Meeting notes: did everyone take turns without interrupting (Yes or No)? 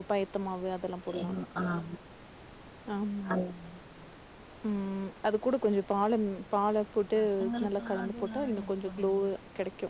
No